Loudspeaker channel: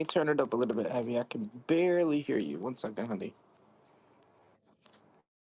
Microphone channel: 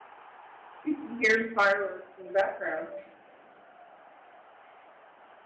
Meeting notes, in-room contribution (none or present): present